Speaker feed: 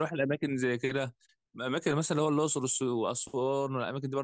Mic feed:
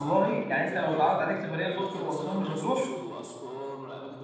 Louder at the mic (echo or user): user